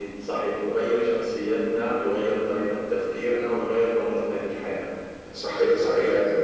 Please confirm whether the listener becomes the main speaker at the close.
Yes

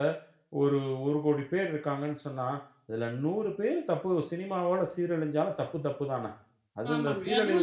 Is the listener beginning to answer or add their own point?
Yes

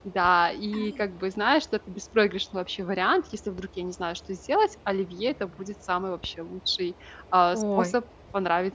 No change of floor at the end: Yes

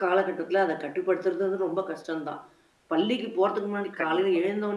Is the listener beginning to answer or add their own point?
No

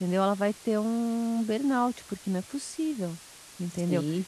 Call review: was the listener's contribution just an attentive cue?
Yes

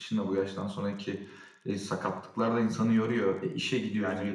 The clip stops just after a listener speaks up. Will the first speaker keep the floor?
No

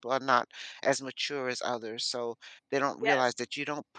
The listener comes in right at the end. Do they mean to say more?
No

